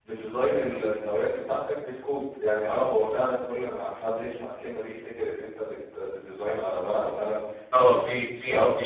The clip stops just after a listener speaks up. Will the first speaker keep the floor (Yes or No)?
No